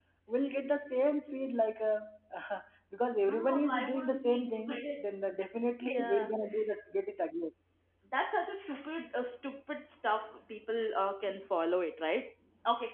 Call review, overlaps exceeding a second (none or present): present